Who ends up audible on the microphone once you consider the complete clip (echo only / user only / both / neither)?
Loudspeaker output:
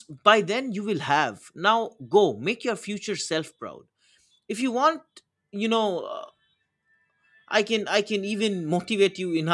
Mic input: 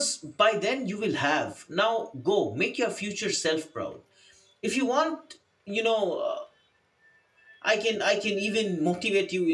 echo only